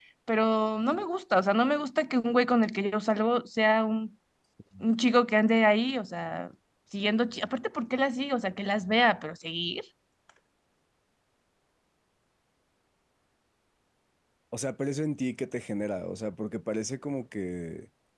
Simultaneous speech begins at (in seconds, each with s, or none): none